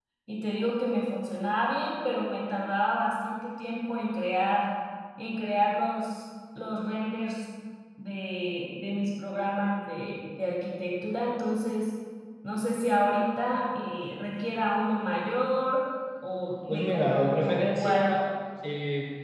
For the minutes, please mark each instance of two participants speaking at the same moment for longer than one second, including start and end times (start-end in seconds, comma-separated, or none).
16.7-18.1